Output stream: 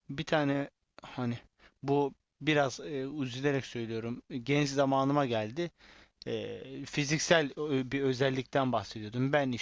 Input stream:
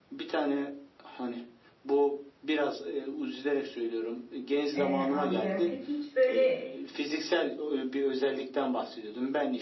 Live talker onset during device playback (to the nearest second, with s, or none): 5 s